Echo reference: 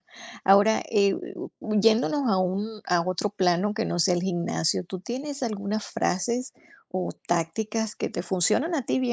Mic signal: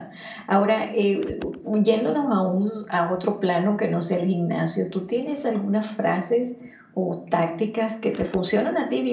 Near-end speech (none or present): none